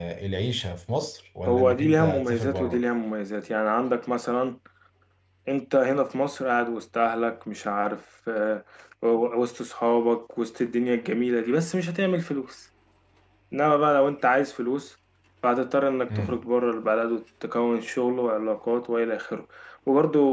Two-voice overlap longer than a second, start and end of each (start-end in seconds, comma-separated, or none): 1.5-2.8